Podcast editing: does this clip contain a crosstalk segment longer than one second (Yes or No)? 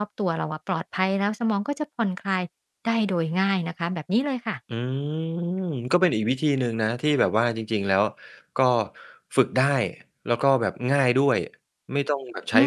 No